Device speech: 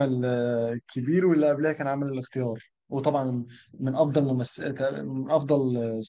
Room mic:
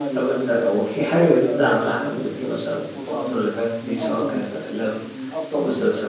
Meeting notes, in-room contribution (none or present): present